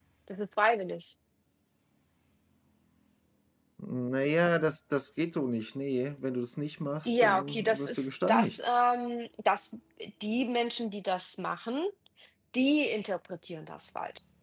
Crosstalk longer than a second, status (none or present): present